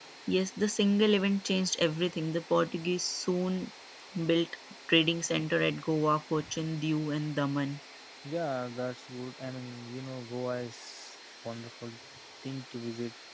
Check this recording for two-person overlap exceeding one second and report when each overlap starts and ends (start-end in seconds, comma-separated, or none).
none